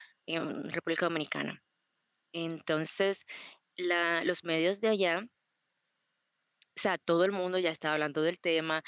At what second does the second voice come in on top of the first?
none

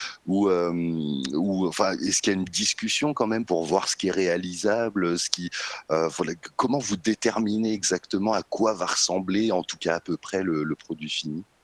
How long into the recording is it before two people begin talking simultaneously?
none

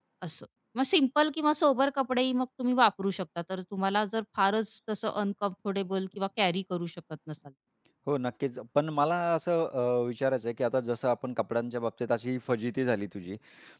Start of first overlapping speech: none

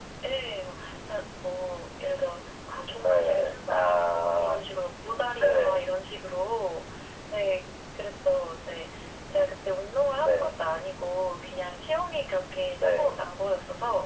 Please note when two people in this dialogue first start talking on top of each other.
3 s

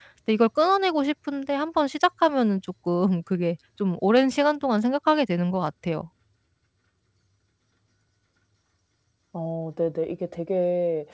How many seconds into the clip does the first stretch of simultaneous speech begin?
none

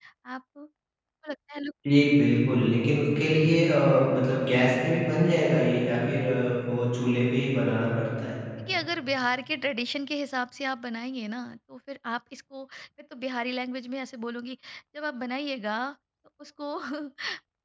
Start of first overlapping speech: none

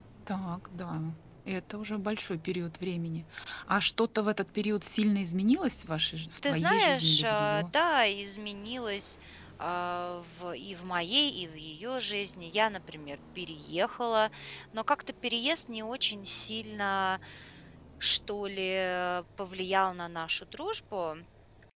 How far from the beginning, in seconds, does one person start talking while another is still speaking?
6 s

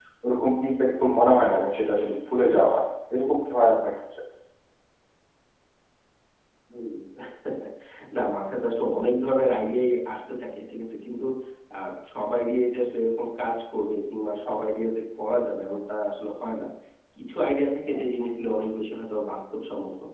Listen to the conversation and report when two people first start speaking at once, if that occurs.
none

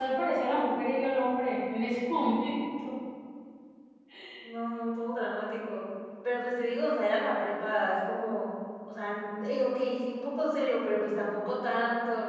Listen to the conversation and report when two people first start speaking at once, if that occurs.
none

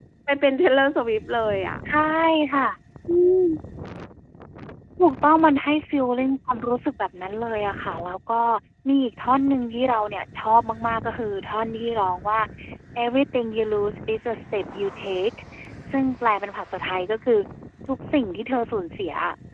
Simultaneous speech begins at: none

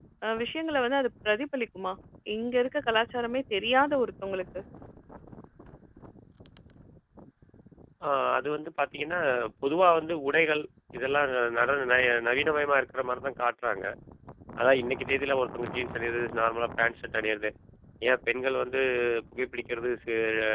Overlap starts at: none

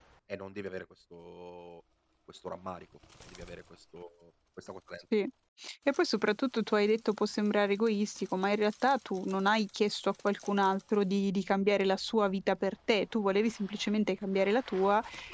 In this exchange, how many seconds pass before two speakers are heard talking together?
none

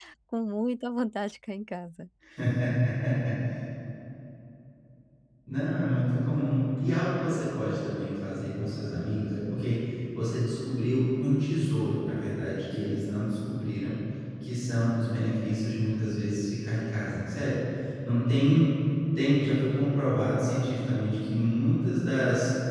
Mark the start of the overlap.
none

